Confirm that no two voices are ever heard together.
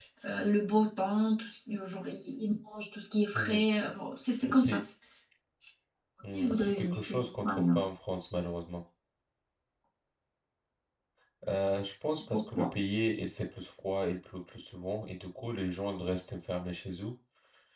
No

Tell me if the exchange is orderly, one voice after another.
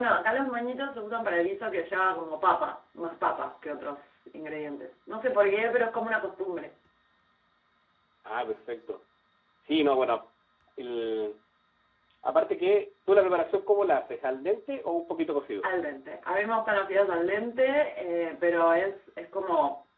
Yes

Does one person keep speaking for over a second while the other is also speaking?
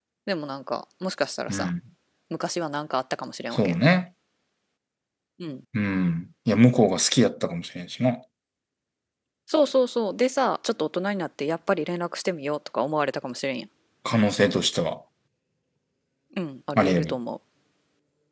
No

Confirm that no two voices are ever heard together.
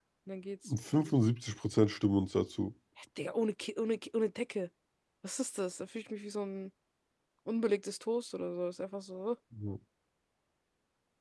Yes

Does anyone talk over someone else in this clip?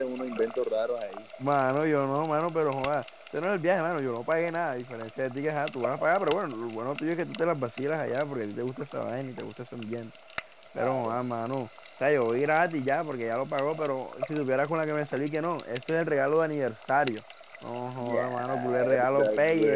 Yes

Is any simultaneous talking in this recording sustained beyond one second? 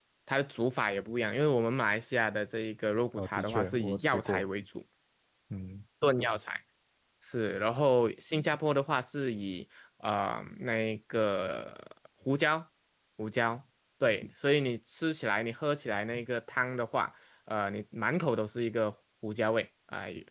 Yes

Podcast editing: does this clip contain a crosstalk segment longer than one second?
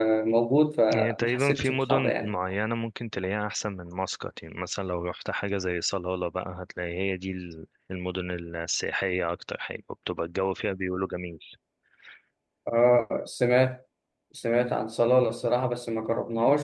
Yes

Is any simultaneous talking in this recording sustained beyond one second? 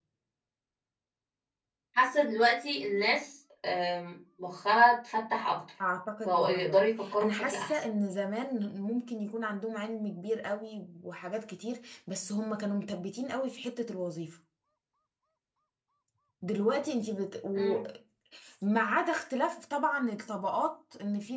Yes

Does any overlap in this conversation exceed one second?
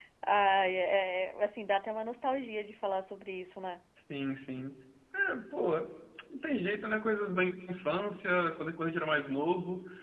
No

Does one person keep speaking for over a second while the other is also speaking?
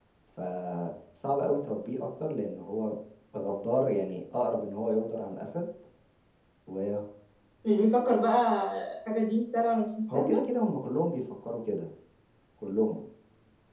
No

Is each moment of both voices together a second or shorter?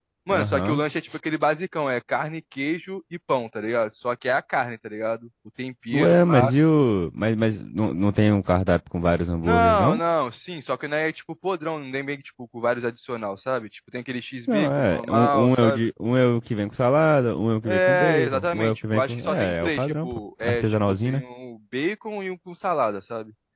No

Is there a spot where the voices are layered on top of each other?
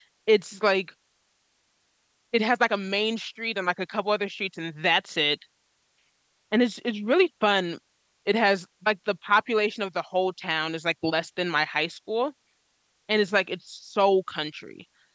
No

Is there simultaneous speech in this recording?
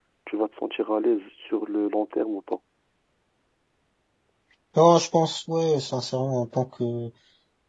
No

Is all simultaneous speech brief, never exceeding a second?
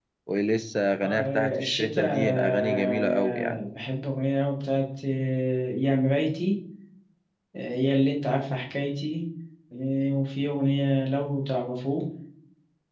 No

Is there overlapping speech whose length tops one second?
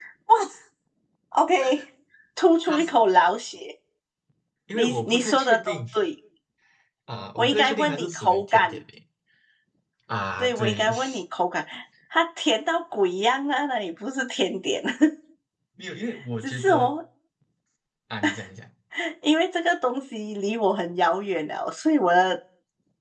Yes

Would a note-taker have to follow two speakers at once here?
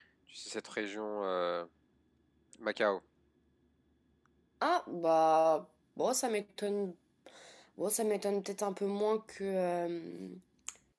No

